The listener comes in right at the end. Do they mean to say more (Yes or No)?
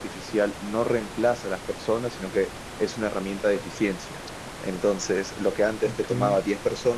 No